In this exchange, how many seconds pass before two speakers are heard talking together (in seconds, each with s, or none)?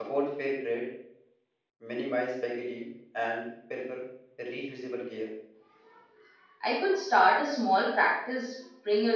none